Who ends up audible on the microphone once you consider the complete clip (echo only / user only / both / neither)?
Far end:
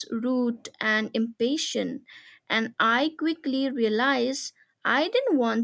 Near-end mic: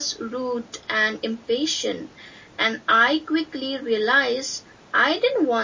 echo only